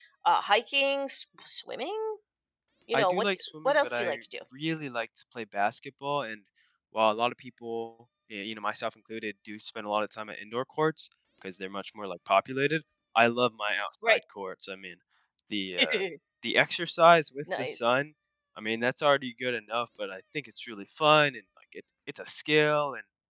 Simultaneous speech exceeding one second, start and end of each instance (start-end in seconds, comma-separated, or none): 2.9-4.1